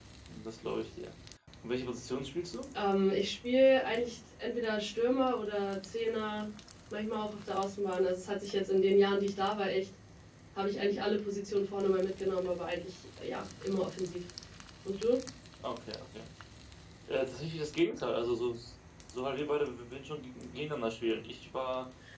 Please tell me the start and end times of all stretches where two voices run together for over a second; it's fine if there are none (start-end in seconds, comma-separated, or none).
none